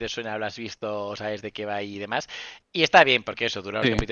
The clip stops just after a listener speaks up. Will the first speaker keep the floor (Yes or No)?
Yes